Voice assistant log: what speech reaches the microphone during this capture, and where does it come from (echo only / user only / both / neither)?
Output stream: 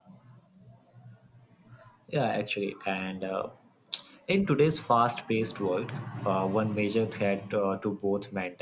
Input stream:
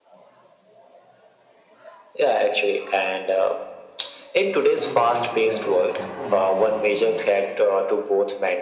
both